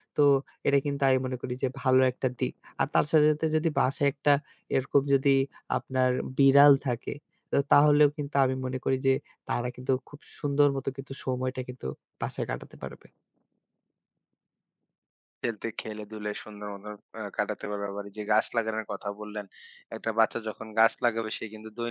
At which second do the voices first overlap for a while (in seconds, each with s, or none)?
none